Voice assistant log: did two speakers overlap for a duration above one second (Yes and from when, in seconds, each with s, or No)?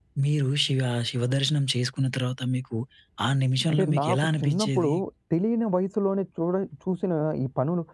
Yes, from 3.7 s